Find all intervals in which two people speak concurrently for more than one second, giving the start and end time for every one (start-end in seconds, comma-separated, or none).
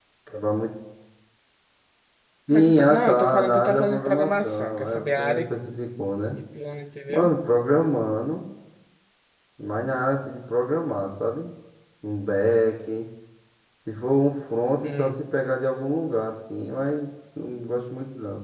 2.5-5.4